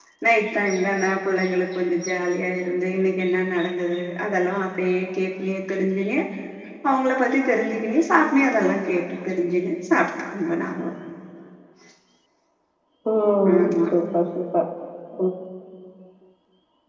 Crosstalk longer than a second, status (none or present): none